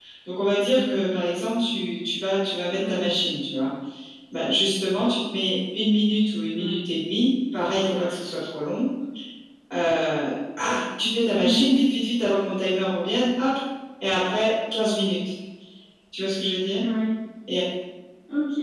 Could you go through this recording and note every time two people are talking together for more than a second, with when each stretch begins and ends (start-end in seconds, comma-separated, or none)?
none